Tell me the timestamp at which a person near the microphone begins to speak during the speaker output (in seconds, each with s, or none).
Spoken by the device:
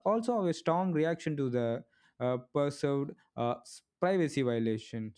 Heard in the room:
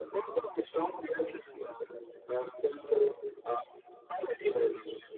none